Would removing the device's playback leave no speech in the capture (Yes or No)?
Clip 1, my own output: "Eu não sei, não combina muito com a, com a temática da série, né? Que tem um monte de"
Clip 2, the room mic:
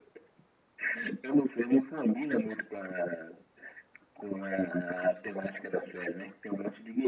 Yes